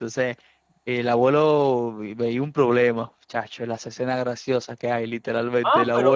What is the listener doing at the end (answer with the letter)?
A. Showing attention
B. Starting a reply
B